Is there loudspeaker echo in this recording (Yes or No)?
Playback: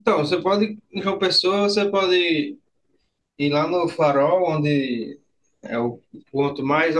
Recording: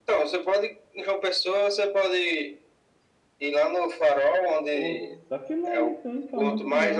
Yes